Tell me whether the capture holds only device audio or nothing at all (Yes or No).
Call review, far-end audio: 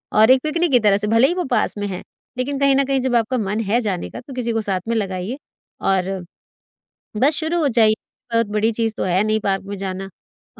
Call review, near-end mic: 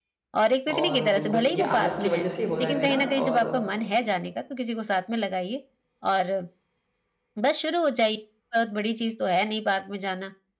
No